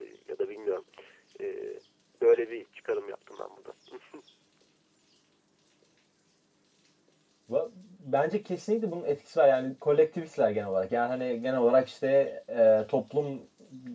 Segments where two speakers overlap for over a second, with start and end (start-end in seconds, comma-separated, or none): none